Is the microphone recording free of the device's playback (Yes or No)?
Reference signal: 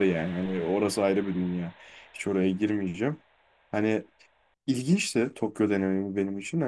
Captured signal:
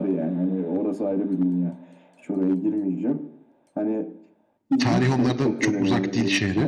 No